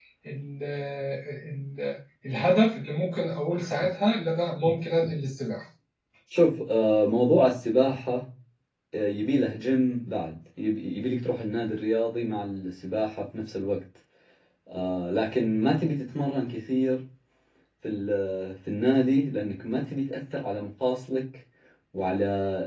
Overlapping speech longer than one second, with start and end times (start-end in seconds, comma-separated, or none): none